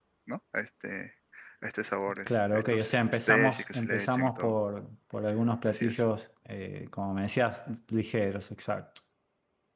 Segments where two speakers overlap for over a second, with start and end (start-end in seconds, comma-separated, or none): 2.3-4.5